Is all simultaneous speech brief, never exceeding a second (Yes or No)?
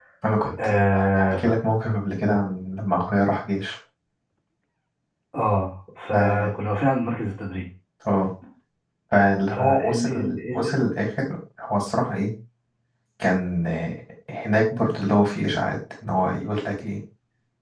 No